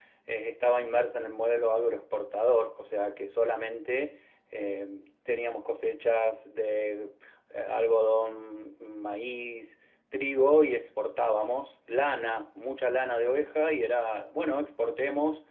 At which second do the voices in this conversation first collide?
none

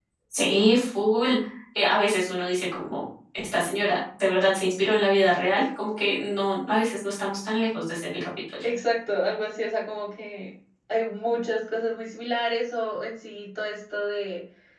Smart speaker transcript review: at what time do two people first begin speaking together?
none

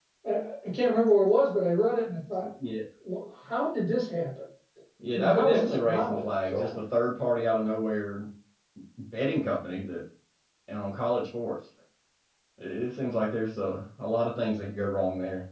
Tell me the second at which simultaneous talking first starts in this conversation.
5.1 s

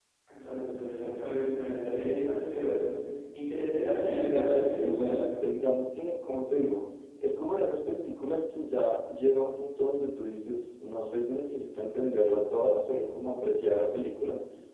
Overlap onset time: 3.9 s

